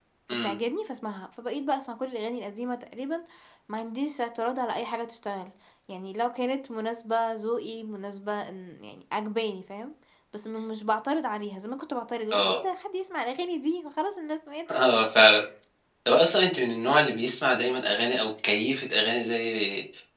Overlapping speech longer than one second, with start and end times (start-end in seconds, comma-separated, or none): none